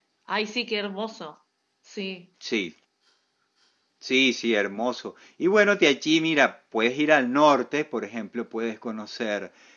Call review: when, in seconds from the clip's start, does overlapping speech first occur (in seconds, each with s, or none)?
none